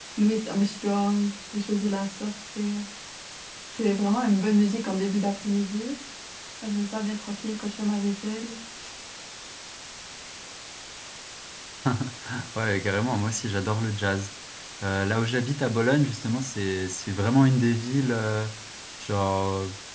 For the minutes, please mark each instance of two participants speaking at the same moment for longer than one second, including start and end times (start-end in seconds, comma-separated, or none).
none